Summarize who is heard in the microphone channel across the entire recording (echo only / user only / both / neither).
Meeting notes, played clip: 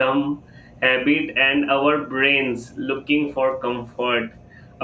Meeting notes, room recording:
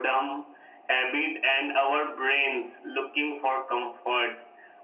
echo only